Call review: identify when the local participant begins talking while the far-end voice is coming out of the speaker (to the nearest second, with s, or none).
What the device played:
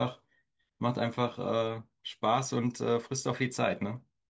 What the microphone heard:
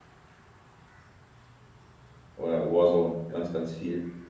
2 s